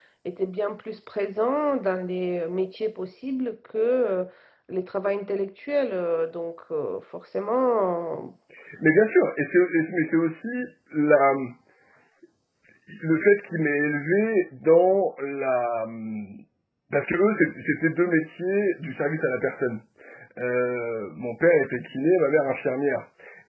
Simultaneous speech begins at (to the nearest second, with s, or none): none